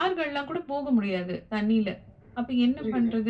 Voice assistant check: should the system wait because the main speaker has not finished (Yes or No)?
Yes